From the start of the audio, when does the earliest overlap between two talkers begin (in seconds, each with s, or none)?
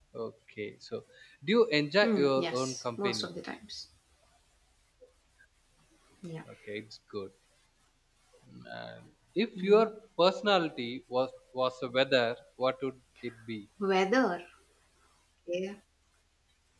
2.0 s